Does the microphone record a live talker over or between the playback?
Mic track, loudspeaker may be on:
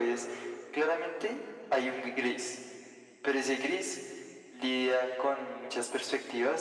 No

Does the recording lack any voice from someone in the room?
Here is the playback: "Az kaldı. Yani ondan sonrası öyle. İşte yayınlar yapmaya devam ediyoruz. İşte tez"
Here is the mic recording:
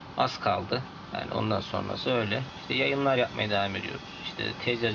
Yes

